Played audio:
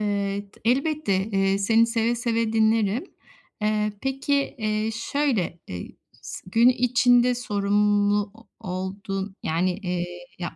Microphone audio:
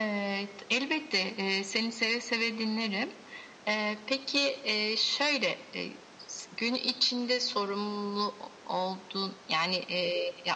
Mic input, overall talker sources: echo only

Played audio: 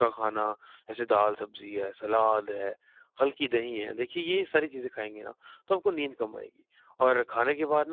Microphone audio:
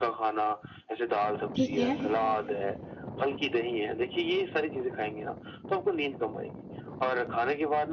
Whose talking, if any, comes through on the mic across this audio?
both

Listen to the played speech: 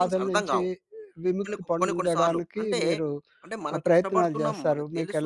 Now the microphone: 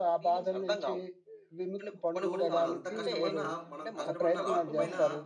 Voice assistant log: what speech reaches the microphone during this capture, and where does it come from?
both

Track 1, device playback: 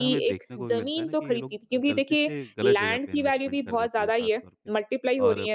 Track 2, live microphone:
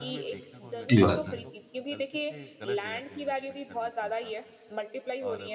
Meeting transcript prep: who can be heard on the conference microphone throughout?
both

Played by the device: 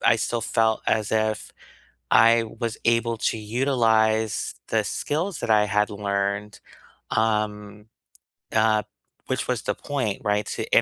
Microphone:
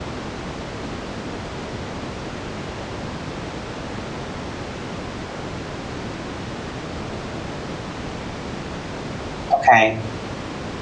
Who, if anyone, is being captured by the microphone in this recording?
user only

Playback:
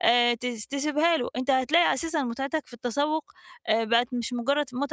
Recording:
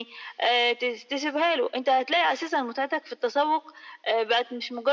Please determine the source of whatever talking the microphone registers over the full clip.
echo only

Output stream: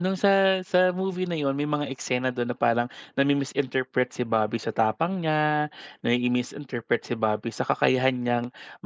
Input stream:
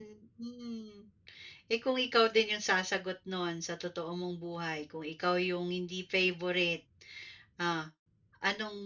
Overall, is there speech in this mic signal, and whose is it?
user only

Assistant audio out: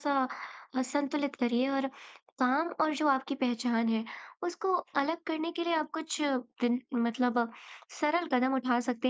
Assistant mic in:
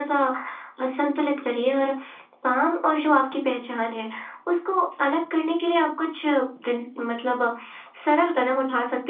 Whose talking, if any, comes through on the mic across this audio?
echo only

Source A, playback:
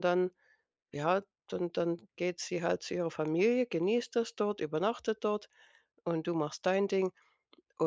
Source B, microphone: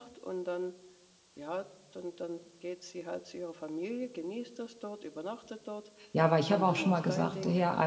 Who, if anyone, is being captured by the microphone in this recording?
both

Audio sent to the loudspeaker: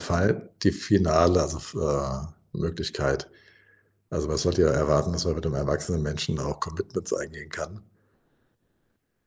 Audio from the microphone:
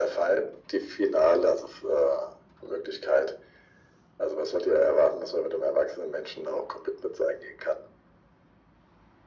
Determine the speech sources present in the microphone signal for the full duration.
echo only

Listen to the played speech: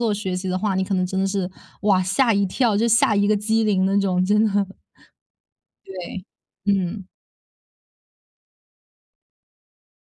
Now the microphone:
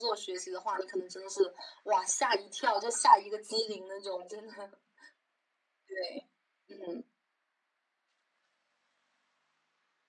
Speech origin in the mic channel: echo only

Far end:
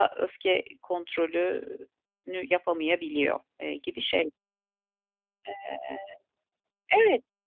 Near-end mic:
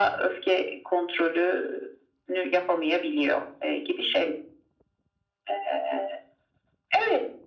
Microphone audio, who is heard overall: echo only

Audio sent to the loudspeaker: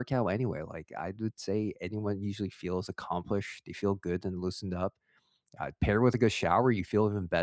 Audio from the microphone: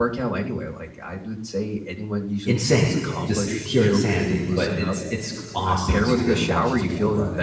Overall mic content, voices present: both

